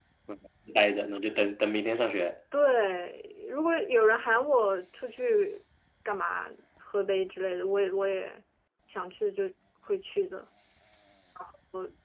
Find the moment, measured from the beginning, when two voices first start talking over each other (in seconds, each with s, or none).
none